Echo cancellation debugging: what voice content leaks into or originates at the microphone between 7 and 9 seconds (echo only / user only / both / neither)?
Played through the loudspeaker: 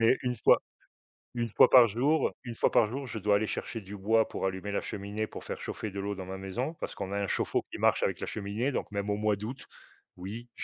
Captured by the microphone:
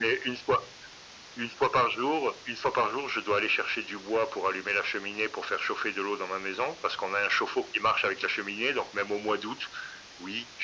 echo only